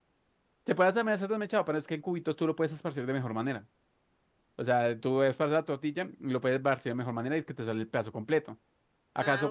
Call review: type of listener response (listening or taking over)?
listening